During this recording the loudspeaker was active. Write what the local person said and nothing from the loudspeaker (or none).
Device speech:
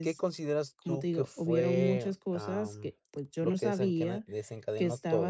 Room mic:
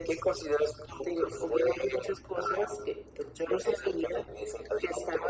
none